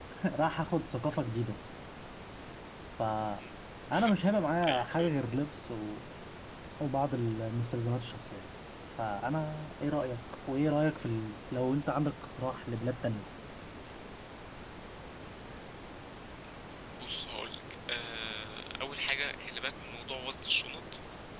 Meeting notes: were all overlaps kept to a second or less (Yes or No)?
Yes